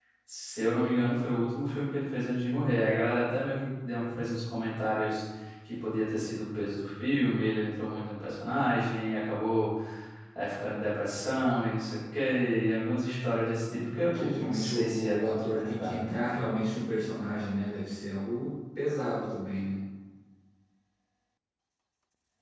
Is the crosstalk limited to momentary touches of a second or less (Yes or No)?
No